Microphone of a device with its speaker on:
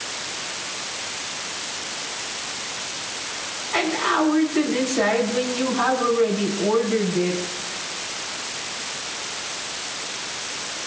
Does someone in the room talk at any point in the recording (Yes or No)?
Yes